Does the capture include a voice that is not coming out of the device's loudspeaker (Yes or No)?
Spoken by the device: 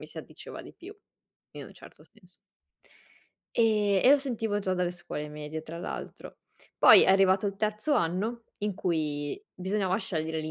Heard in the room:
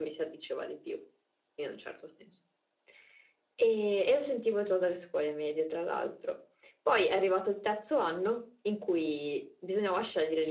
No